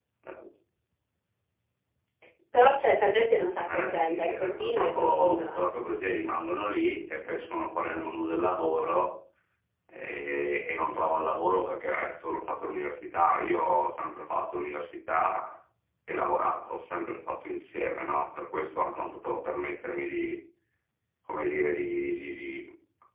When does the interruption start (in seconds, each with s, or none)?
3.6 s